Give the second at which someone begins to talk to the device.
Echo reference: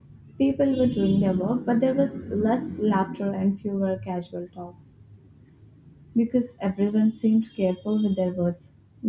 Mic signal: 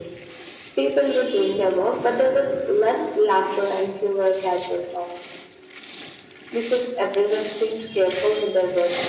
none

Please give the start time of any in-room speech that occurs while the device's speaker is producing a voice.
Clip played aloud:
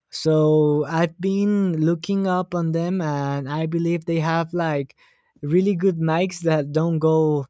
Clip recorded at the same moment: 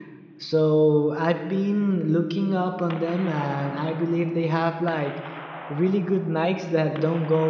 none

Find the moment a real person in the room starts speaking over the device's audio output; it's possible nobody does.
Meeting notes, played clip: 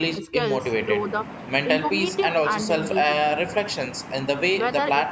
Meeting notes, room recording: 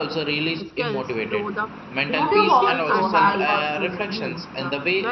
2.1 s

